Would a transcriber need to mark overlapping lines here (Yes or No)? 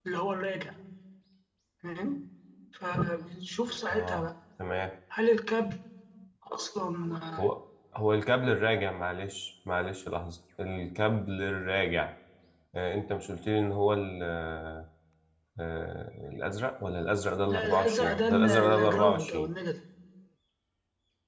Yes